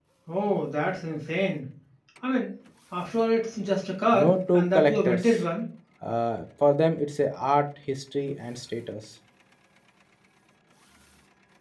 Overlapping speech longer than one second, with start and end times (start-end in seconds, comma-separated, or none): 4.1-5.3